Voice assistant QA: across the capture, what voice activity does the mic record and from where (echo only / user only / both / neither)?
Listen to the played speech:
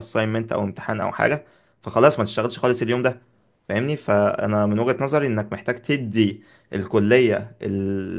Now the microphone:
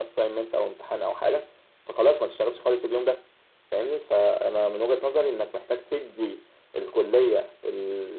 echo only